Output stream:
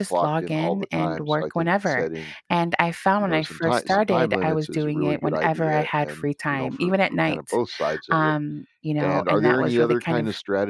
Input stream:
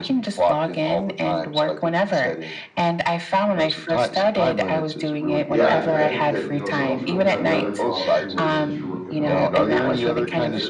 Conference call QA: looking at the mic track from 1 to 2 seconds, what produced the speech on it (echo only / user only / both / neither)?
echo only